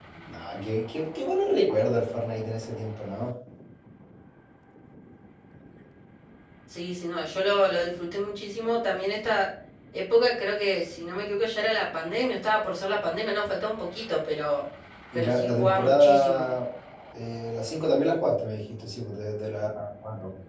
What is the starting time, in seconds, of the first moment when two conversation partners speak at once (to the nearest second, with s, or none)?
15 s